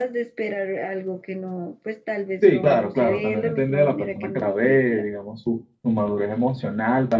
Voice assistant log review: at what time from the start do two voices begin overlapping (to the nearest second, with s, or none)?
2 s